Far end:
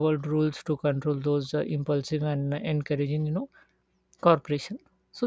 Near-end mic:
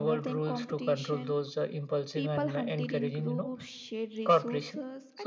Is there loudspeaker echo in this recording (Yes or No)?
Yes